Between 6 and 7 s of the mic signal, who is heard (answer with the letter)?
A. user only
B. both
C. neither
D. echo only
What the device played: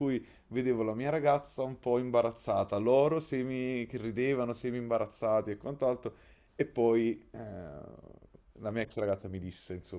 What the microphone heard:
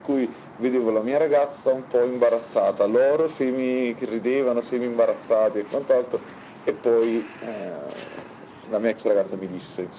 D